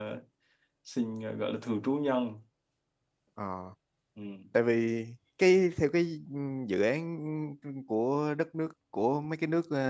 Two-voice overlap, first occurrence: none

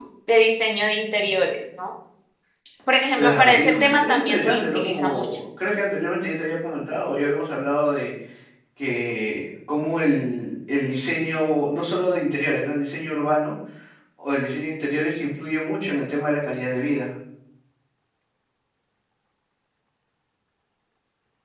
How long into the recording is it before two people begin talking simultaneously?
3.2 s

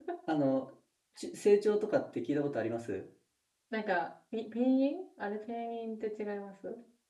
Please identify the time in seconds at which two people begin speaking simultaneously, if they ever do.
none

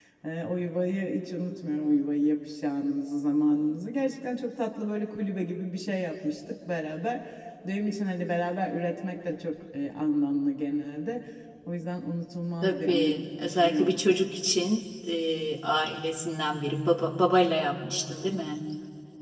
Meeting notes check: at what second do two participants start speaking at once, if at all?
12.6 s

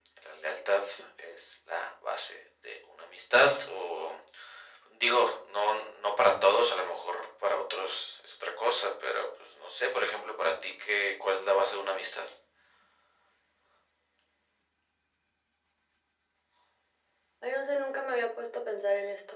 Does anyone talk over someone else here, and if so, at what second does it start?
none

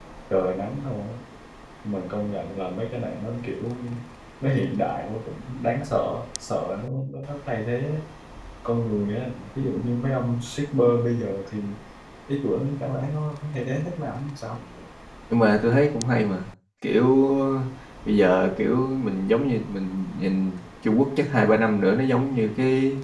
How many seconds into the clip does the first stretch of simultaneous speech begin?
none

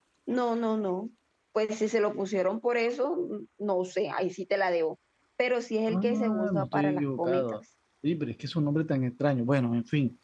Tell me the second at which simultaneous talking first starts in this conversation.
5.9 s

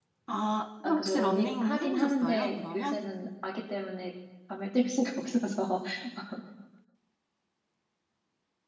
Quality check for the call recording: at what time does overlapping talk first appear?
0.8 s

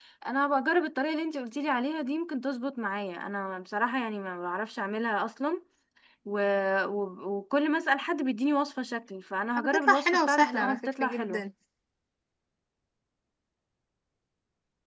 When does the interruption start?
9.6 s

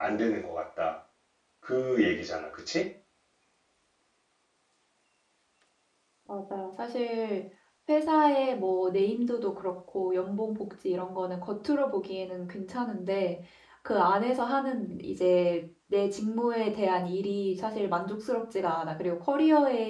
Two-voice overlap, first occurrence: none

